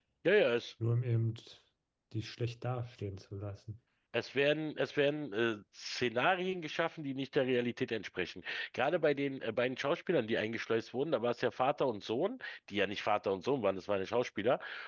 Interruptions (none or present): none